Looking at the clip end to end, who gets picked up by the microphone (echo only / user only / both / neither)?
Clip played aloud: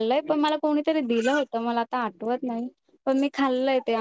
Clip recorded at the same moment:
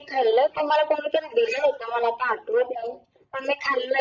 echo only